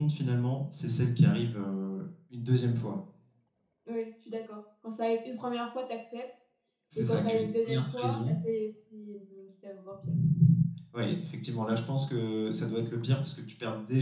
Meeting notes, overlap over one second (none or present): present